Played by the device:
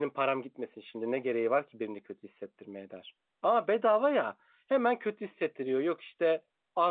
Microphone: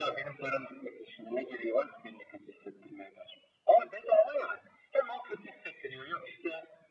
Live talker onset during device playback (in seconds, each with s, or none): none